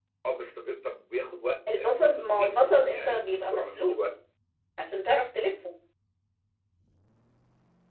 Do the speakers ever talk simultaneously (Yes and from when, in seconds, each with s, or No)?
Yes, from 1.7 s